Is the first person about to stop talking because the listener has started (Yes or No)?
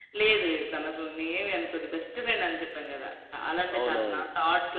No